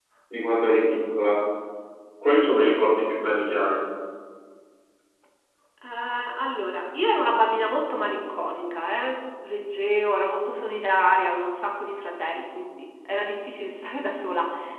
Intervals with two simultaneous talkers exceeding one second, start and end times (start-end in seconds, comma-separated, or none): none